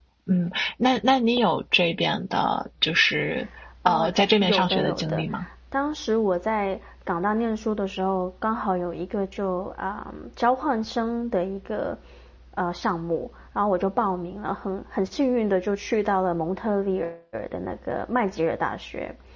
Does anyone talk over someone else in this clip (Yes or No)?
Yes